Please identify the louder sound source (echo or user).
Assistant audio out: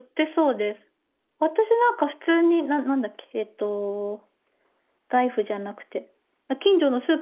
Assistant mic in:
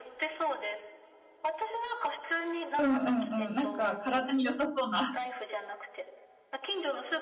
user